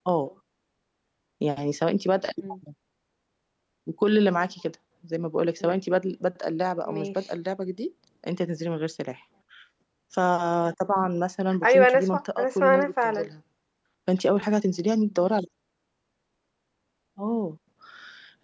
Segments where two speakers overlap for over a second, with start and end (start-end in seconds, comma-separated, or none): 11.6-13.3